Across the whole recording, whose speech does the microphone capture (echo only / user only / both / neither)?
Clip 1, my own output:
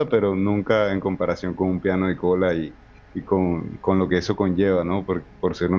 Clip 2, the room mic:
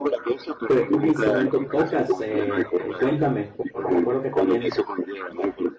both